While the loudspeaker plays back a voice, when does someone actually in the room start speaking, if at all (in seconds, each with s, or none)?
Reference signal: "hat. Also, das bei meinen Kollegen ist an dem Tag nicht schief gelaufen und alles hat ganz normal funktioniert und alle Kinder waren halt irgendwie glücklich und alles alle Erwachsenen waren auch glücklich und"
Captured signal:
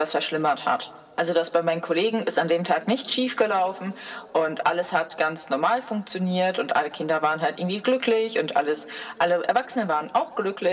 none